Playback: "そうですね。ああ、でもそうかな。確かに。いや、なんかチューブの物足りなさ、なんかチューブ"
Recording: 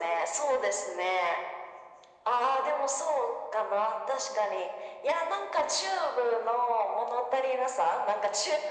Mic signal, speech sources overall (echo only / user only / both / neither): echo only